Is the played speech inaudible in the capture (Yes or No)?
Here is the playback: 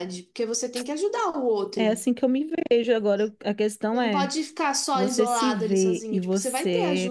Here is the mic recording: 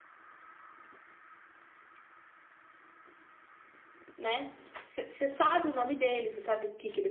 Yes